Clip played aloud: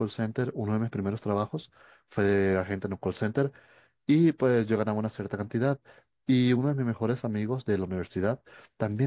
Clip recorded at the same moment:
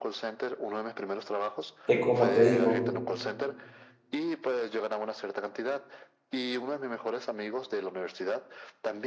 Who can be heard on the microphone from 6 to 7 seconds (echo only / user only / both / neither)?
echo only